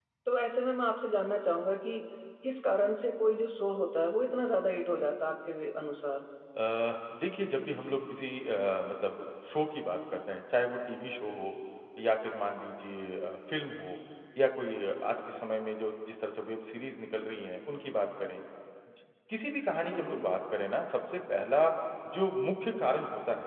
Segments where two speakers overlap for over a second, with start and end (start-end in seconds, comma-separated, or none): none